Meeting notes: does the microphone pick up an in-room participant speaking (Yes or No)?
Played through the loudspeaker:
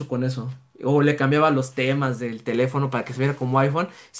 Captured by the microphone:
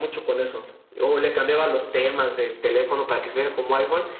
No